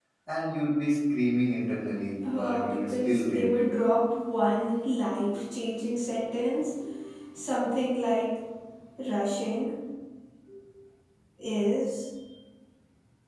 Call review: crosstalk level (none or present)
present